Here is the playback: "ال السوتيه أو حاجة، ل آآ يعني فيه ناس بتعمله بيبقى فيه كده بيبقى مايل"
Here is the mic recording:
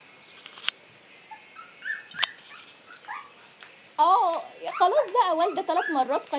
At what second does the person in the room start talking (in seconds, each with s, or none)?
4.0 s